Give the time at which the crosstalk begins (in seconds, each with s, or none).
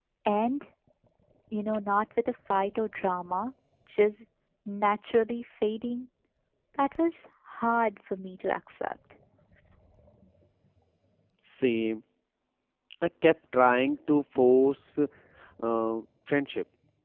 none